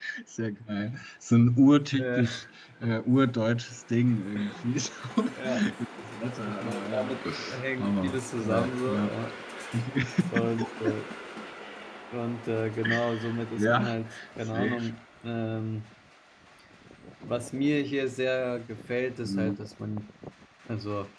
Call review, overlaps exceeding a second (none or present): present